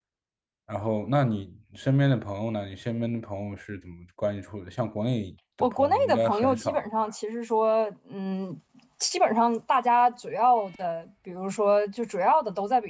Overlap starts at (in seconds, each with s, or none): 5.6 s